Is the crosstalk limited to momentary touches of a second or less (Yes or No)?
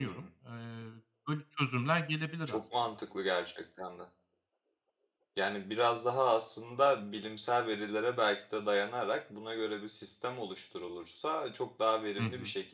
Yes